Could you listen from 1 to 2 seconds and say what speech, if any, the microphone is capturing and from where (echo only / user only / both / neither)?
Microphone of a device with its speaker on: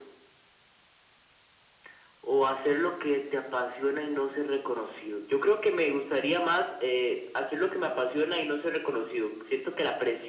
neither